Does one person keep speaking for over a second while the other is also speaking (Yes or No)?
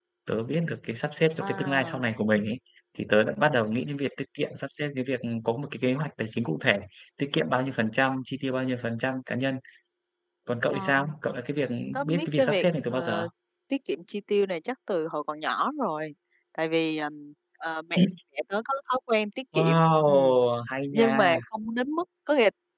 Yes